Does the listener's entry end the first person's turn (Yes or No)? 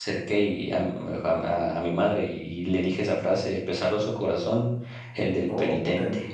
No